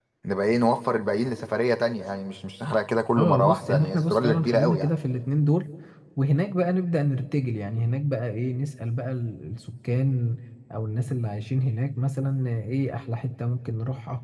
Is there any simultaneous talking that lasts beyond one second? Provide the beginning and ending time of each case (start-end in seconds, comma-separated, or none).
3.2-4.9